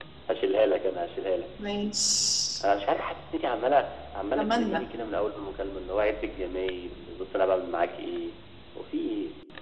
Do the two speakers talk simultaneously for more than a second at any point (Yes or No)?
No